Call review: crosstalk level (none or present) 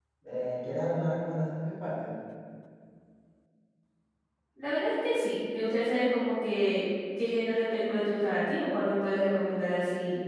none